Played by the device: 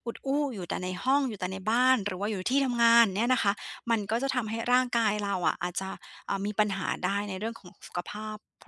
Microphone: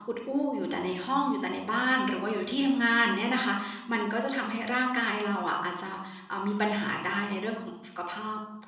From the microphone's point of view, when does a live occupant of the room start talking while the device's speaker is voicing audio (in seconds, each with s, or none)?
none